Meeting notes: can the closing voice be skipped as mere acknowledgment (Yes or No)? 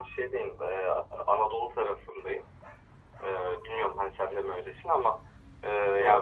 Yes